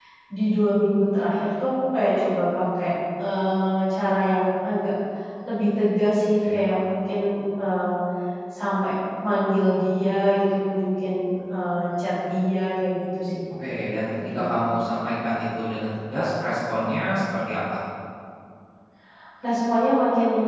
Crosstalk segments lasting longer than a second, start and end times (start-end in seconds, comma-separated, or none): none